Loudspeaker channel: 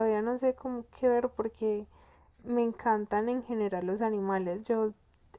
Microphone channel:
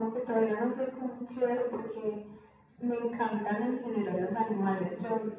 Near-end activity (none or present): present